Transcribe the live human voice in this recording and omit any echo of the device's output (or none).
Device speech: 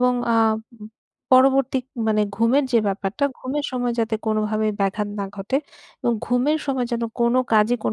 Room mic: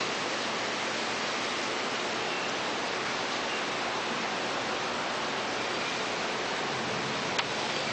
none